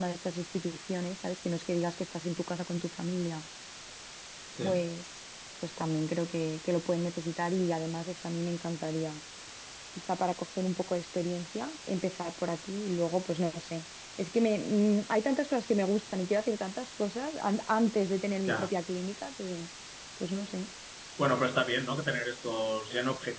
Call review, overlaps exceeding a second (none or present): none